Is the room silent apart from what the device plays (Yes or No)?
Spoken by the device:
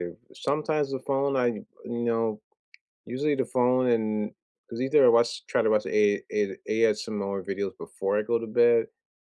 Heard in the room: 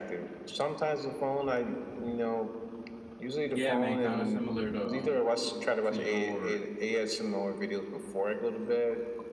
No